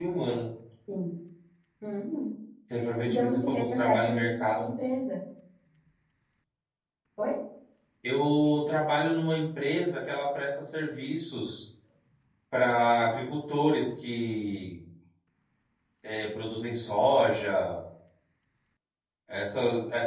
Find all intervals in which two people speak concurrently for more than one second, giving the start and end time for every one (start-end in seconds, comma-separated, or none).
3.0-4.7